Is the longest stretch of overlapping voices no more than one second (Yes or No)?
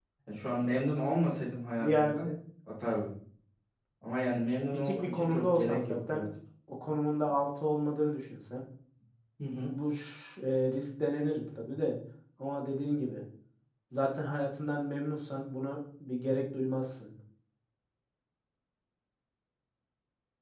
No